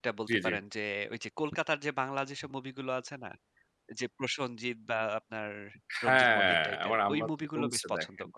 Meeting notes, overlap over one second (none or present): present